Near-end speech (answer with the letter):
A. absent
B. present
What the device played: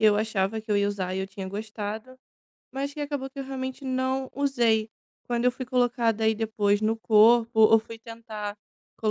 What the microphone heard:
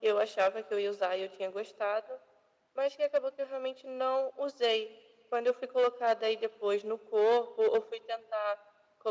A